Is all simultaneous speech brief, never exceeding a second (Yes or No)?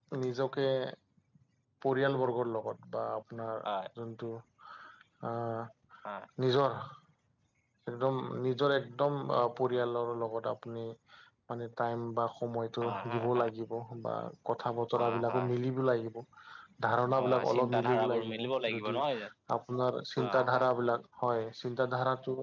No